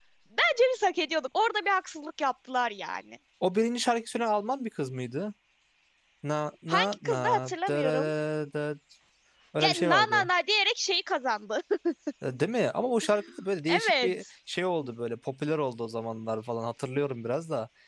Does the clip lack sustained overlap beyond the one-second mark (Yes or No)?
No